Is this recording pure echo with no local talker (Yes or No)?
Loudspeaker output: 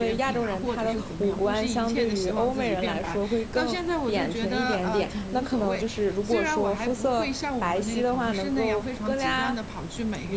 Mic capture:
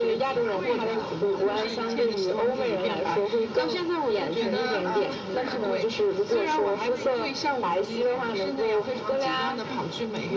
No